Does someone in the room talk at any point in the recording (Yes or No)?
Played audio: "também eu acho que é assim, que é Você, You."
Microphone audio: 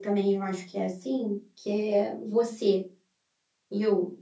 No